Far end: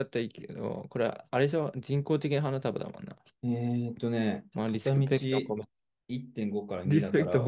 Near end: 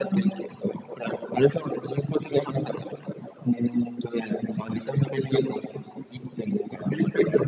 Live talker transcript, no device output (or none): none